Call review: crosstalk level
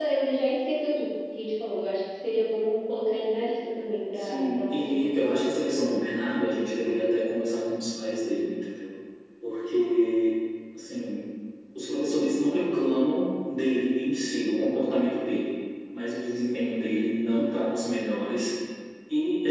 present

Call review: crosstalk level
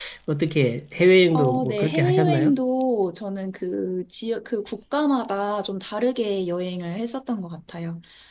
present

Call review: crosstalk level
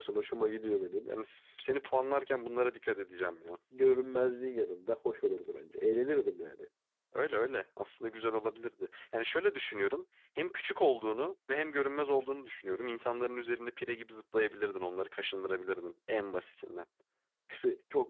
none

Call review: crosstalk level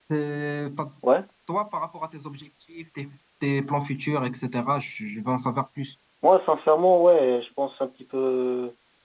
none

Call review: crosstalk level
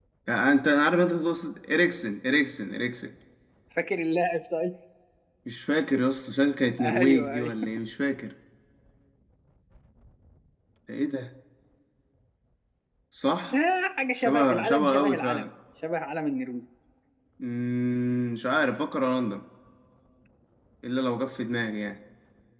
present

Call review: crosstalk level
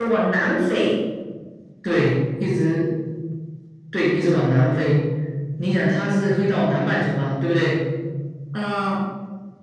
none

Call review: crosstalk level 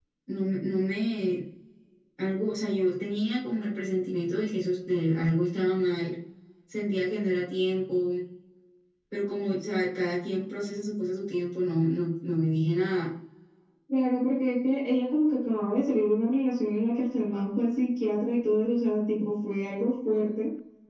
none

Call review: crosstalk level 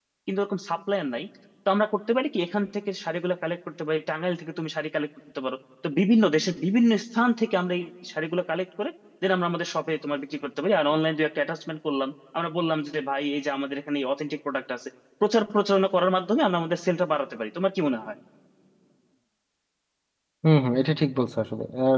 none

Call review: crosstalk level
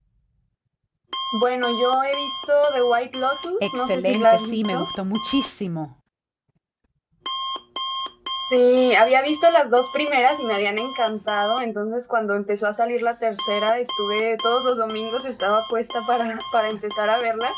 present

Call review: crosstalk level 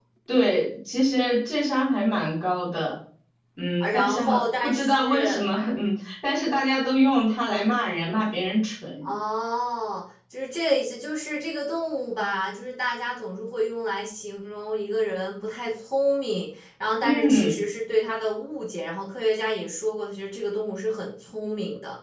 present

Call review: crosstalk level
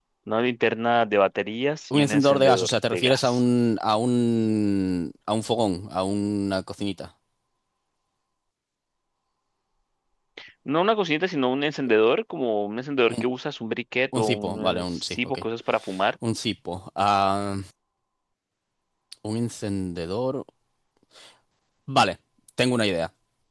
present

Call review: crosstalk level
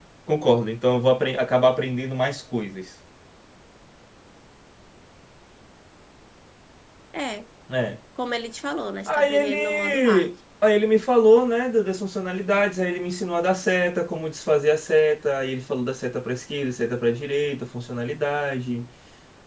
present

